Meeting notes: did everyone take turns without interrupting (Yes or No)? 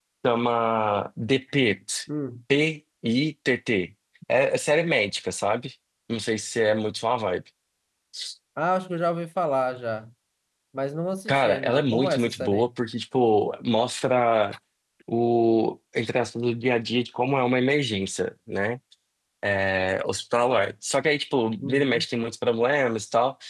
No